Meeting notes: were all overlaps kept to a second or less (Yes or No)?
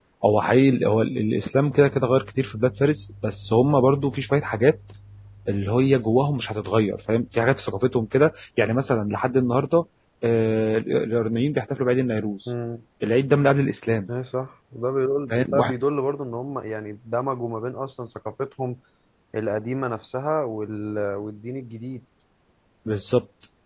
Yes